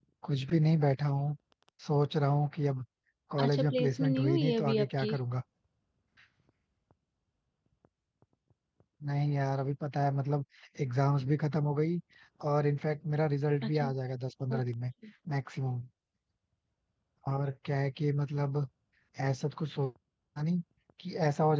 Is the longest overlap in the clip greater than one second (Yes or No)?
Yes